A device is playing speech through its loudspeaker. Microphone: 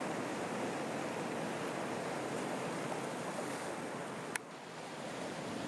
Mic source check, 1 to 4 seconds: neither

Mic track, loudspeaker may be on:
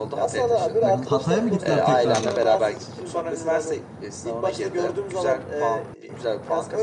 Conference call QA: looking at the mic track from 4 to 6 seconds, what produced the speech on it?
echo only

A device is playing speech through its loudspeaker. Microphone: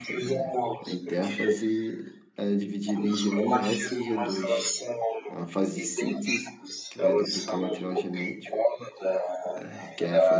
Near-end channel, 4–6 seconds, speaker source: both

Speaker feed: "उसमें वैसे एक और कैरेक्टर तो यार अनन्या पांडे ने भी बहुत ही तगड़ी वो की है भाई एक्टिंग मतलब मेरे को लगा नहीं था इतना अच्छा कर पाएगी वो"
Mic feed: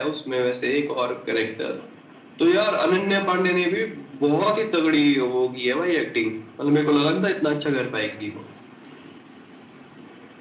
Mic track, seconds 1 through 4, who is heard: echo only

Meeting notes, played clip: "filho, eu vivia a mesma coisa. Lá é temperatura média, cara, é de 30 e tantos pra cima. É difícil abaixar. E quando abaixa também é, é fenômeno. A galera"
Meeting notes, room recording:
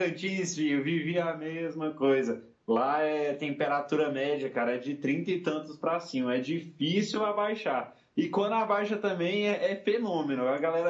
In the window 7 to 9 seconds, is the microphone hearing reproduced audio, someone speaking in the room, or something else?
echo only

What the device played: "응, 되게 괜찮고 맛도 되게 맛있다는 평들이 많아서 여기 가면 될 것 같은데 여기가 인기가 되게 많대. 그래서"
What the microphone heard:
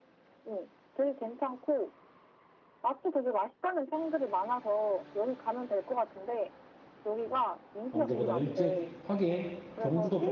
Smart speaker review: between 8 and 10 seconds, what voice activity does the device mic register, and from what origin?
both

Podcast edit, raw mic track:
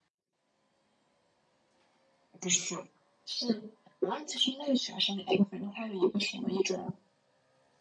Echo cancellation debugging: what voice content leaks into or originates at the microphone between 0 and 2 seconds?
neither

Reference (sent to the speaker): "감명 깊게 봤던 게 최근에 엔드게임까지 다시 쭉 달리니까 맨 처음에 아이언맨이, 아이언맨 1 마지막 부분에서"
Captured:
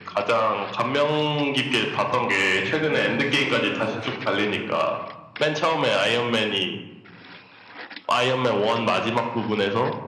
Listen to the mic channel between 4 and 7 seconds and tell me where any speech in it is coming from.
both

